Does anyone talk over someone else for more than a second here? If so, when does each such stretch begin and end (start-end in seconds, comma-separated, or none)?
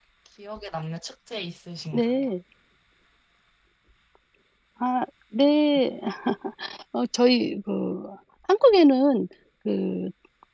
none